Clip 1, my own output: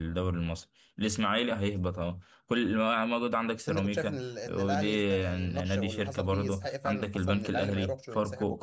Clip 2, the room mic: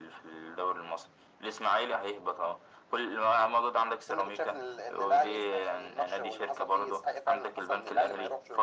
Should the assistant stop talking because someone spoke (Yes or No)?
No